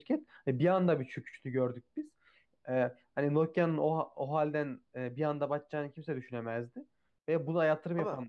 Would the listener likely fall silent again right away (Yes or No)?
Yes